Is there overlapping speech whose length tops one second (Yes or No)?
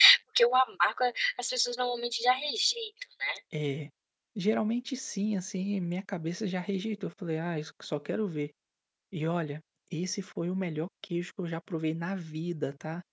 No